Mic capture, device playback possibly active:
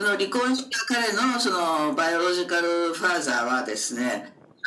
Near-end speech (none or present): none